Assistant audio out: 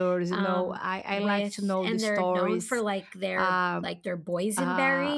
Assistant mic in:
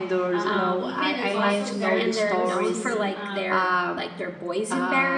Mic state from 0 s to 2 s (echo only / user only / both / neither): both